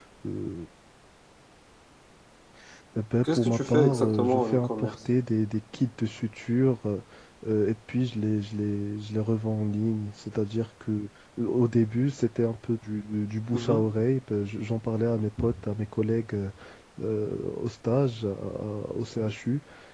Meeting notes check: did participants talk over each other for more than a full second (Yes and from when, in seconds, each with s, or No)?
Yes, from 3.2 s